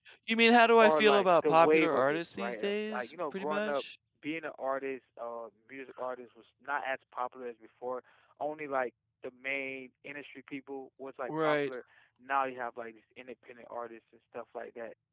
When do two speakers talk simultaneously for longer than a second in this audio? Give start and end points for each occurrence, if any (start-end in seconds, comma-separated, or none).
0.8-3.8